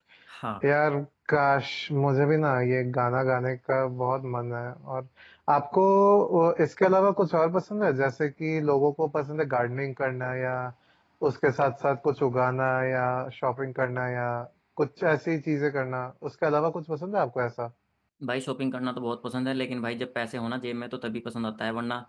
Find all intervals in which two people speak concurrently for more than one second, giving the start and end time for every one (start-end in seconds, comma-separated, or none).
none